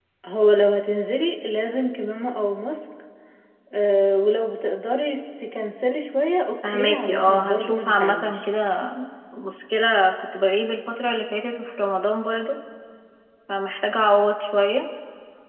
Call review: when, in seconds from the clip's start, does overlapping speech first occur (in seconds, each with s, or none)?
6.6 s